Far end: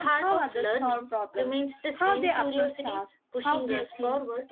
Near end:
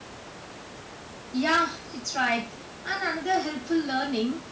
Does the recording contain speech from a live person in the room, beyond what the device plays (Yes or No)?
Yes